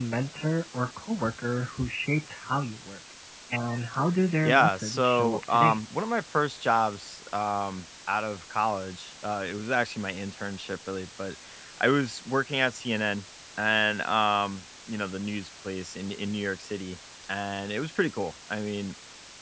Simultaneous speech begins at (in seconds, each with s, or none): 4.4 s